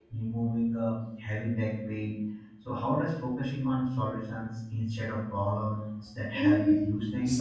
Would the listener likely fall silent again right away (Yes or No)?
No